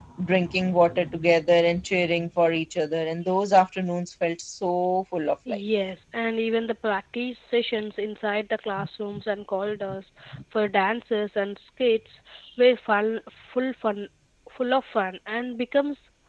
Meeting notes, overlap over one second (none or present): none